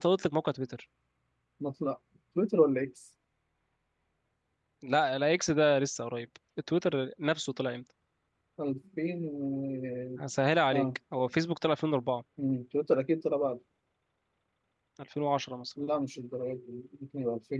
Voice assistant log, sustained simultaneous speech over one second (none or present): none